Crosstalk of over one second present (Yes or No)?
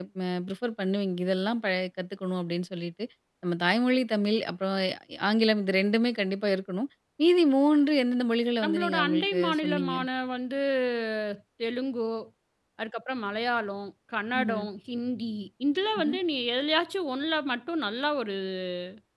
Yes